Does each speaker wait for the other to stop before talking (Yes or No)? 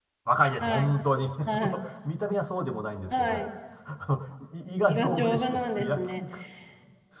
No